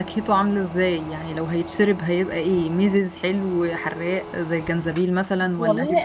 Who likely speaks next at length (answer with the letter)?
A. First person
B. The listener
B